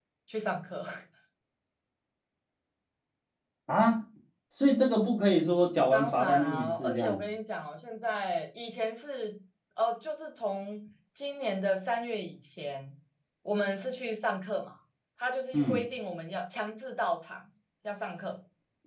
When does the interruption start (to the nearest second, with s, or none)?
6 s